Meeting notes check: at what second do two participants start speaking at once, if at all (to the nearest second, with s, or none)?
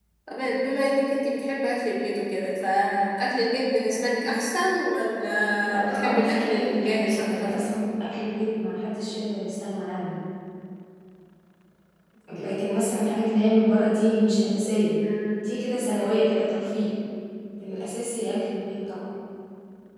6 s